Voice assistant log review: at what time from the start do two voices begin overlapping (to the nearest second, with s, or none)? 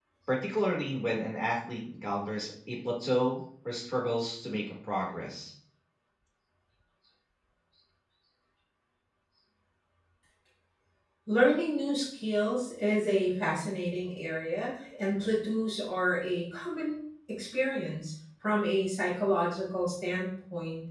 none